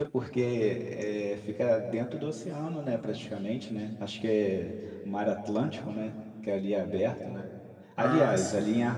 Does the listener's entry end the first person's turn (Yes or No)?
No